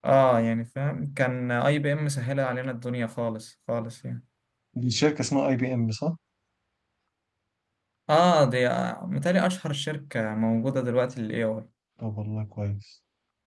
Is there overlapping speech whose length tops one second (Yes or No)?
No